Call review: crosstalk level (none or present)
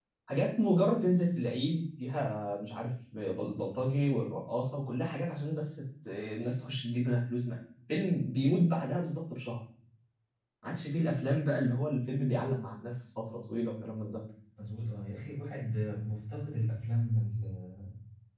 none